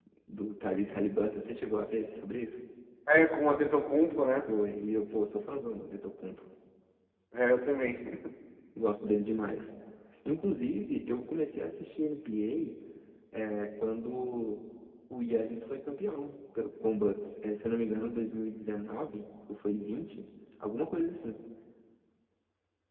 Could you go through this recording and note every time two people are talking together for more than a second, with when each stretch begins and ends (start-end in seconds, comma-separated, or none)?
none